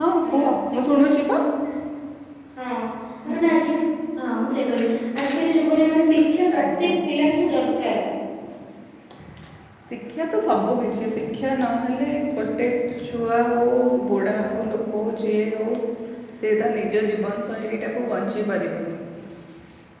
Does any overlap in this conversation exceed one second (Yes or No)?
No